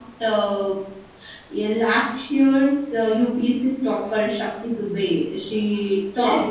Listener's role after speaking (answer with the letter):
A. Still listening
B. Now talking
B